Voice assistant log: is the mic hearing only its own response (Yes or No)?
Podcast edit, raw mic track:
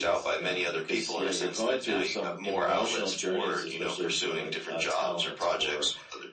Yes